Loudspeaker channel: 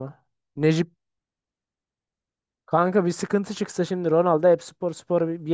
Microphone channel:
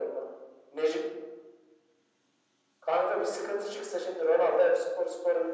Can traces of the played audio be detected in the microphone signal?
Yes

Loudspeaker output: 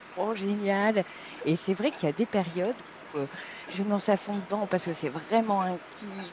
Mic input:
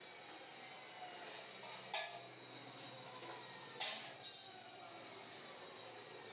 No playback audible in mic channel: Yes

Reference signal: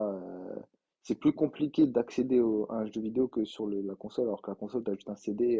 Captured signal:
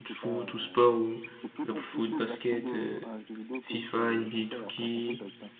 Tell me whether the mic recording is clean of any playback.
No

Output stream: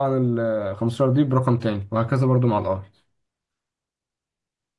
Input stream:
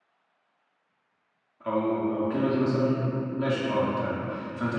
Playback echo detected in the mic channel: No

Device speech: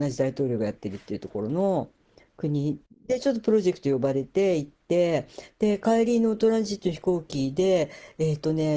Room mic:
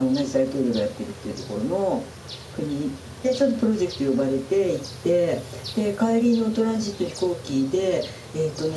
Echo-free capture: No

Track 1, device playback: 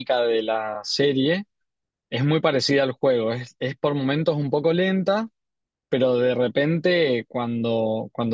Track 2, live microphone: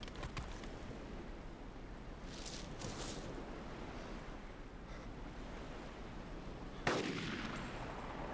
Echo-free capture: Yes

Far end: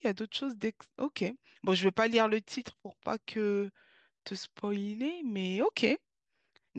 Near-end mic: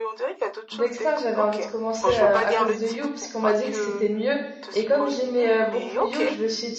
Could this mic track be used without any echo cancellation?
No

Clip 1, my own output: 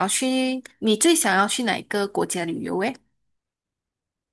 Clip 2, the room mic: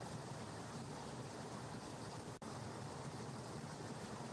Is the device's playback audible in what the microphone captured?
No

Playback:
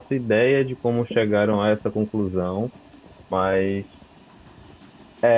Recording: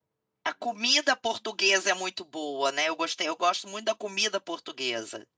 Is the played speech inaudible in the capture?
Yes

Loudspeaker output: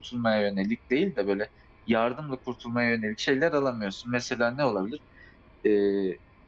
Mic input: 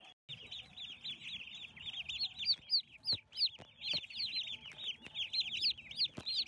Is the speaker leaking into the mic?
No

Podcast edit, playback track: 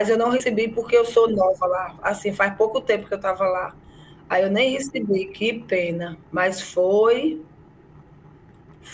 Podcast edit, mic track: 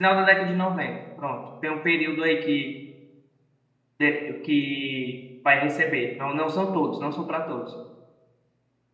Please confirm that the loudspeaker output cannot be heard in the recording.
Yes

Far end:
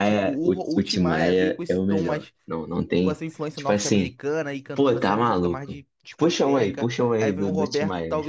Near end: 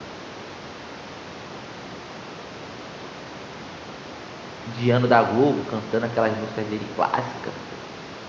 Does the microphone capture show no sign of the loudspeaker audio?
Yes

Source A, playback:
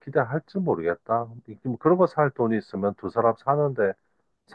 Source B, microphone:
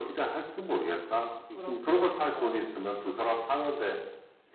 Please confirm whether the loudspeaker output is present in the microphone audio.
Yes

